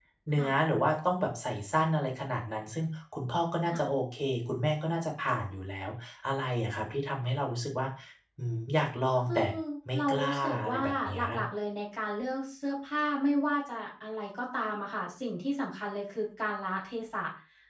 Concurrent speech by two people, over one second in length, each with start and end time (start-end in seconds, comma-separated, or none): 10.0-11.2